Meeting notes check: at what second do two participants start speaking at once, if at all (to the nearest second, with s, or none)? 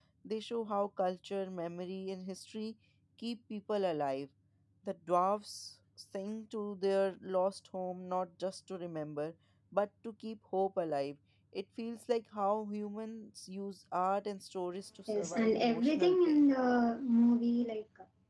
15 s